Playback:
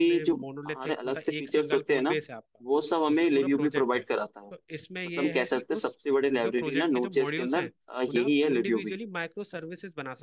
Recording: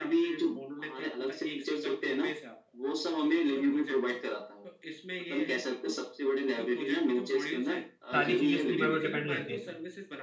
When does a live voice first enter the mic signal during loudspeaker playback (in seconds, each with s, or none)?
8.1 s